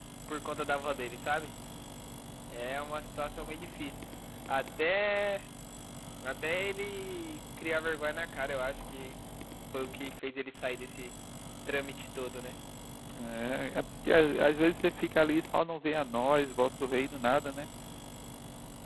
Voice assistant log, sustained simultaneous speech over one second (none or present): none